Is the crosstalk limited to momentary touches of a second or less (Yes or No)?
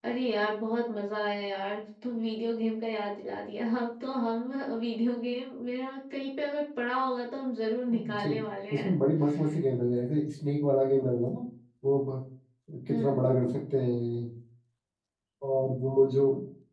Yes